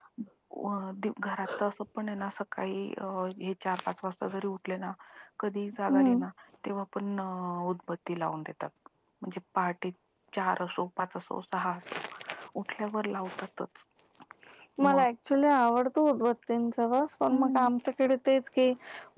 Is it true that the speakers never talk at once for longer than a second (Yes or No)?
Yes